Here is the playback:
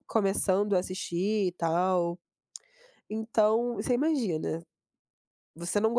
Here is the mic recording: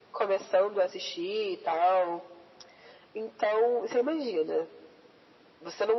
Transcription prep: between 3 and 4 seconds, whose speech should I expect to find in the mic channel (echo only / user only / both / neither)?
echo only